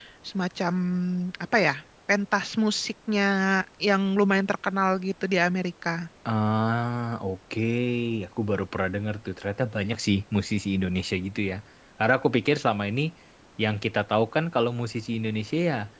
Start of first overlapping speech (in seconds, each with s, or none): none